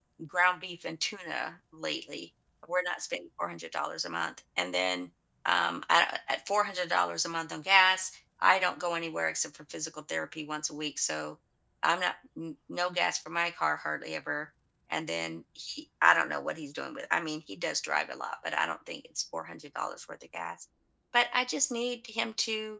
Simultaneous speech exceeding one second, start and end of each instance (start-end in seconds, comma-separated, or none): none